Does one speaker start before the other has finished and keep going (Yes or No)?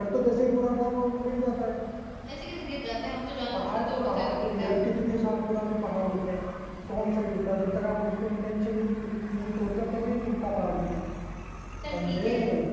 Yes